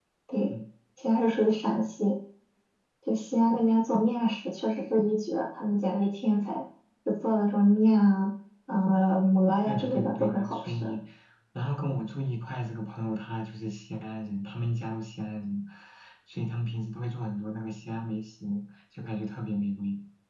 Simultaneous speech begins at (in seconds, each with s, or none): 9.7 s